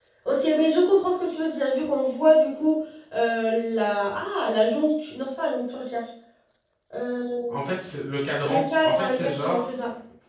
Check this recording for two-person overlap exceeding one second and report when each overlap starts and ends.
8.4-9.7

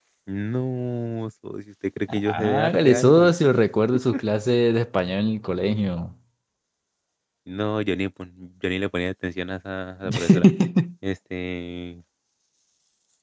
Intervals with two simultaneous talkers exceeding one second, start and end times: 2.1-3.3

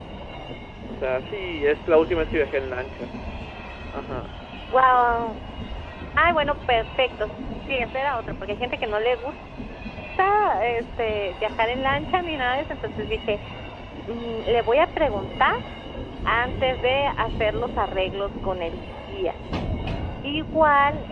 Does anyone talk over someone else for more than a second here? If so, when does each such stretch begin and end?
none

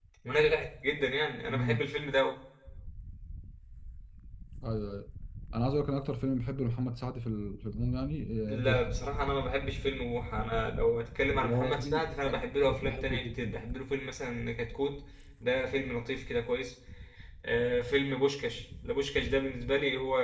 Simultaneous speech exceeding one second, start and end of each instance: 11.3-13.5

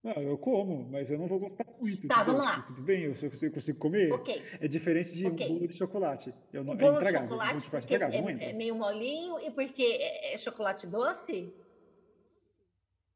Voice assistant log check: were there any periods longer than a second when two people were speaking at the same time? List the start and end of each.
6.7-8.6

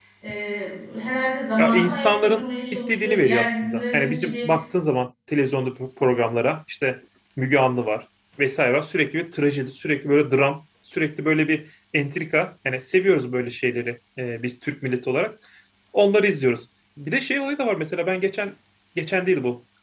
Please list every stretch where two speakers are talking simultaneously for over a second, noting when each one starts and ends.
1.6-4.5

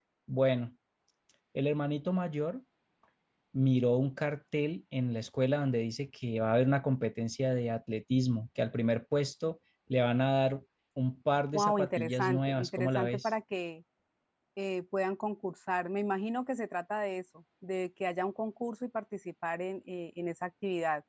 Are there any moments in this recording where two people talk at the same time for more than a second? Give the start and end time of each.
11.5-13.3

